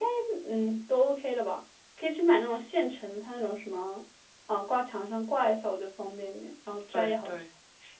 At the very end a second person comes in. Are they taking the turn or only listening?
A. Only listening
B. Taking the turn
B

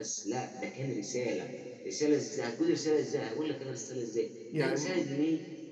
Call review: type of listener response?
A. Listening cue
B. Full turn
A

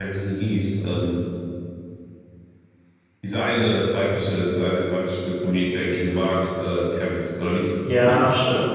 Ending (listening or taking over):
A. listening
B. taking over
B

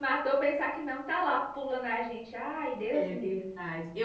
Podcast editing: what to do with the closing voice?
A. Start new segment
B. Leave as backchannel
A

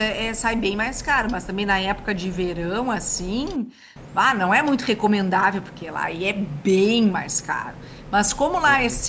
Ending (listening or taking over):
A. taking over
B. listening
B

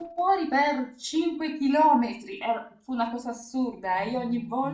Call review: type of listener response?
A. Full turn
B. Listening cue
B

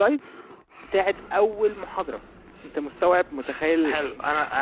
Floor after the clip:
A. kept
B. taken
B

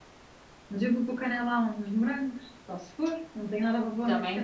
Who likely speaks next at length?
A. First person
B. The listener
B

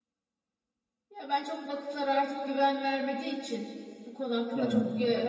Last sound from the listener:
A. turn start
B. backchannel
B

